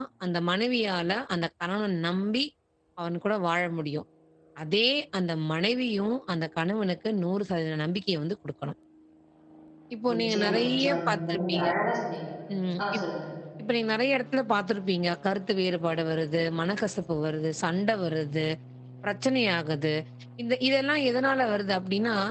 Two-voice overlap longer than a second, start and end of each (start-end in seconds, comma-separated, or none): 10.1-11.7